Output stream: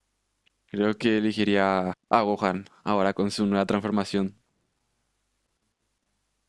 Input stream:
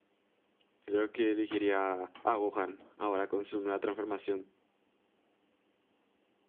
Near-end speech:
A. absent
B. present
A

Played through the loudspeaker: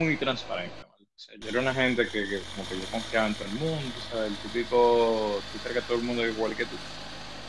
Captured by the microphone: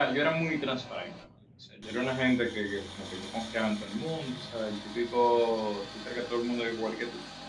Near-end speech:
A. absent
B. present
A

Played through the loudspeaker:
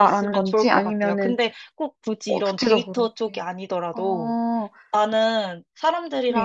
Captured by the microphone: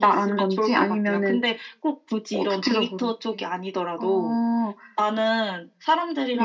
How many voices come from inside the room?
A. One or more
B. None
B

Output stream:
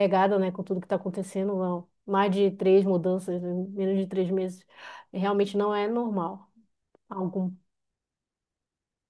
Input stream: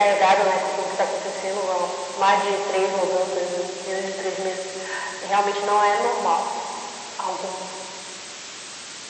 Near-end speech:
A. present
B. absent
B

